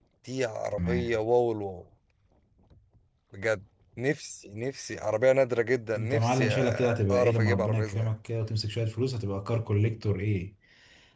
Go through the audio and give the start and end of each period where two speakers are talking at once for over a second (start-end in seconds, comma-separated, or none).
6.0-8.1